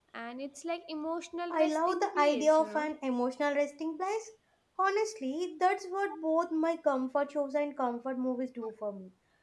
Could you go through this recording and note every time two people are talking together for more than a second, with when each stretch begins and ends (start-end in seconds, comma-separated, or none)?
1.5-2.8